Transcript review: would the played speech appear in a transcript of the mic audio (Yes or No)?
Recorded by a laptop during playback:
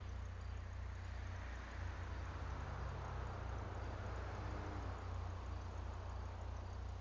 No